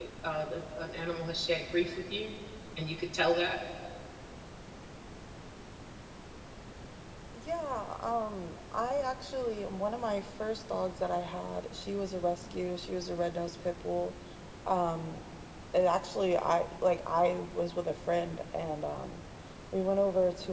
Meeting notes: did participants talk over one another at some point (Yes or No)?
No